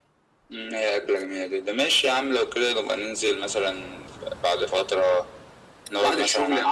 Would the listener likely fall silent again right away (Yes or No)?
No